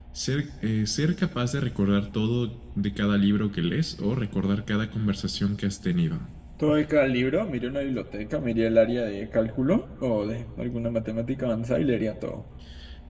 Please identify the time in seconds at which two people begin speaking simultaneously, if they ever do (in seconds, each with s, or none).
none